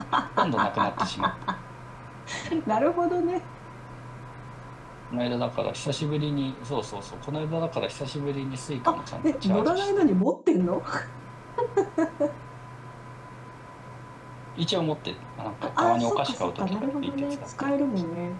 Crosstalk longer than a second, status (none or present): present